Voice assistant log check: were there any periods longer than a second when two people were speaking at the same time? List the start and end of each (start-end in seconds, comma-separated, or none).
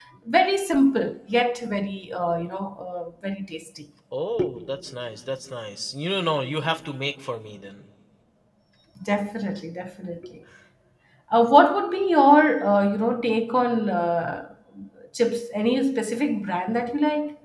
none